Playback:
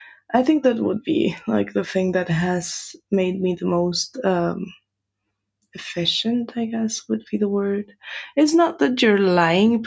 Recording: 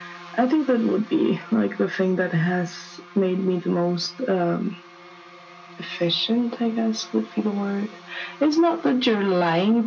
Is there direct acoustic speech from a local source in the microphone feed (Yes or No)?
No